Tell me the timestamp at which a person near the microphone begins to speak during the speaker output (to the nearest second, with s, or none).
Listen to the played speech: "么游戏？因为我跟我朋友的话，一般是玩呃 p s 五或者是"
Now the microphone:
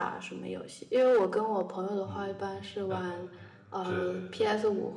2 s